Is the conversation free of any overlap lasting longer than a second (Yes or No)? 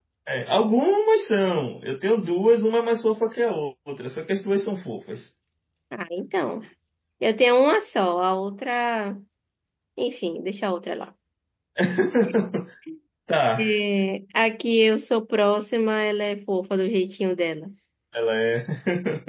Yes